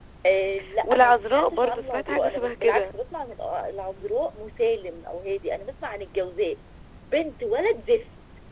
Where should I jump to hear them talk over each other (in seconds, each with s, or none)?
0.8 s